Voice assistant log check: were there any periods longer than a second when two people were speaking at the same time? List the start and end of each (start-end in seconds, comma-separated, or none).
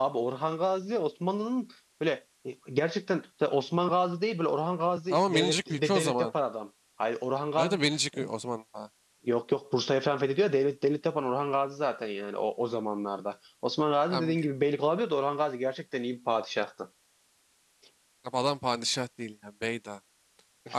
5.1-6.3